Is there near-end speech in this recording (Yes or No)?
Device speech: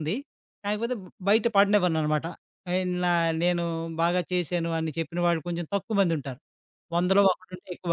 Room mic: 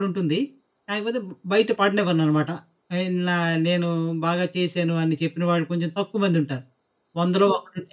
No